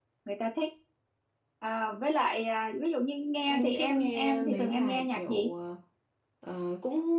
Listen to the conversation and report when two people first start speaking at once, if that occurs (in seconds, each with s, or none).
3.5 s